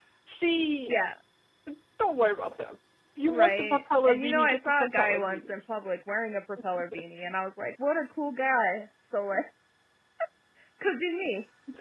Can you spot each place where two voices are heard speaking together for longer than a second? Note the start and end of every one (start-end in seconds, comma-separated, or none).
3.3-5.5